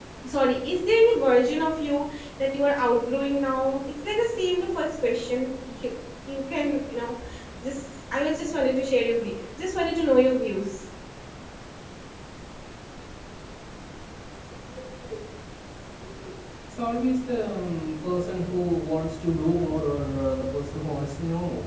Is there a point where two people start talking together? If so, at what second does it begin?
none

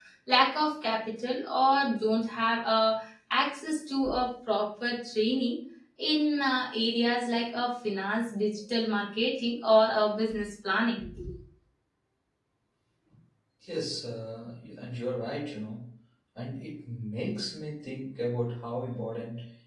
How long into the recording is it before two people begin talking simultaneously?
none

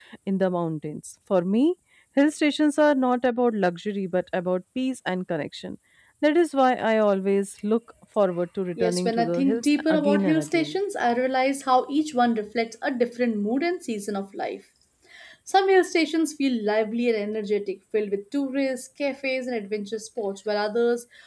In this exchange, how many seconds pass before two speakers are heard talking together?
8.8 s

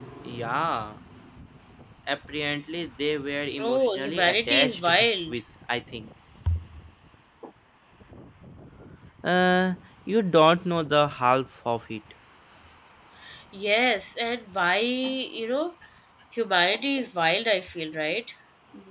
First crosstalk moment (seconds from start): 3.6 s

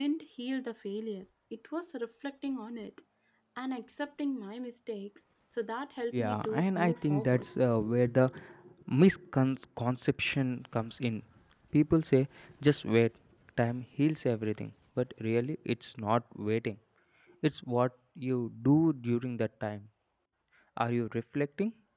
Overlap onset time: 6.1 s

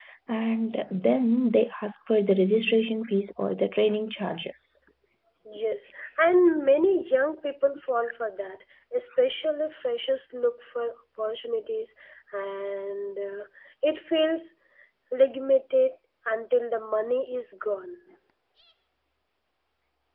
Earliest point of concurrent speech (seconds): none

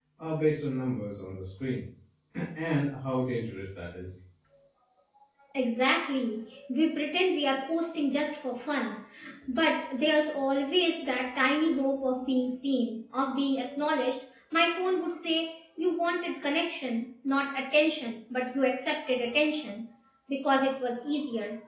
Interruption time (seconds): none

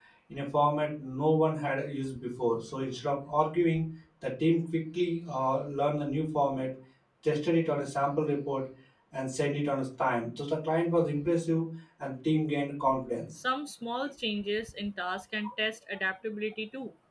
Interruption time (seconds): none

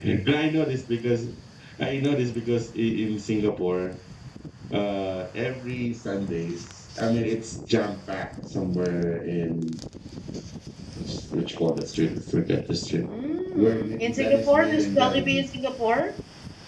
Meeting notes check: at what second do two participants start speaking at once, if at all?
13.5 s

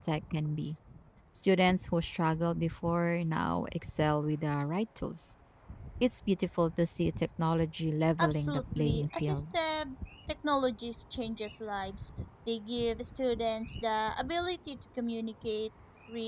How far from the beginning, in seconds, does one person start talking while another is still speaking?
8.2 s

